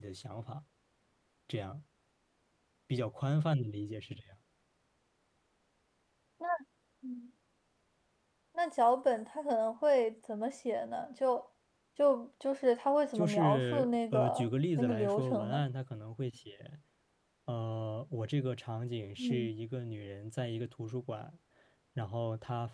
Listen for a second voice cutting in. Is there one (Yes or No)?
Yes